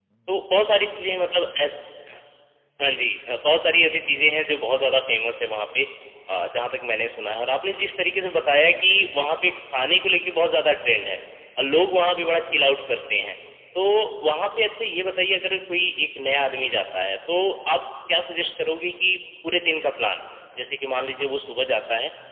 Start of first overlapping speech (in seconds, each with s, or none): none